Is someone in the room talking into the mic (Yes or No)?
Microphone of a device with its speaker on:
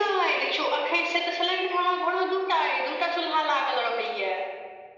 No